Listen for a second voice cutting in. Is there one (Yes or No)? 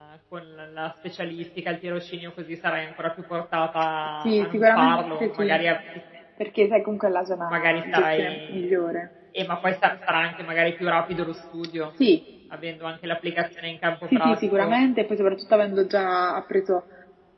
Yes